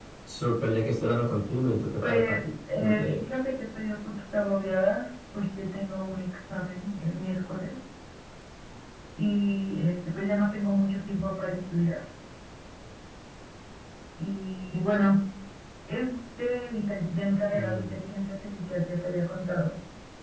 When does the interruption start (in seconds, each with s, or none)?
2.0 s